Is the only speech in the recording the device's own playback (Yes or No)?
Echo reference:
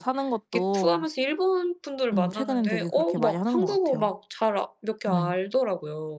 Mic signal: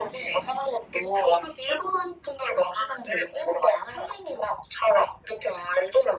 Yes